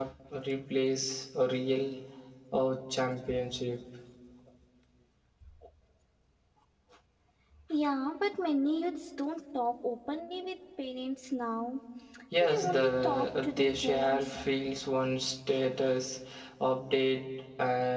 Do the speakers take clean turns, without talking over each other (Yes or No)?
No